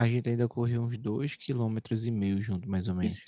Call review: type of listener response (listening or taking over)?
listening